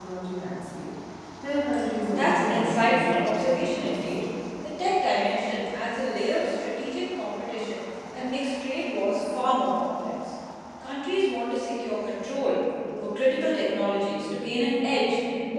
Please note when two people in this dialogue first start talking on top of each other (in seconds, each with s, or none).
2.1 s